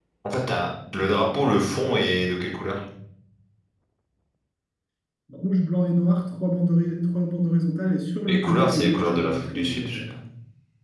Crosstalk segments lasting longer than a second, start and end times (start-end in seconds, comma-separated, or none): 8.3-10.0